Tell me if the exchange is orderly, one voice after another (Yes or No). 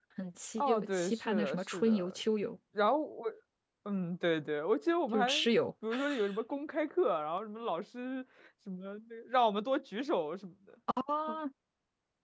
No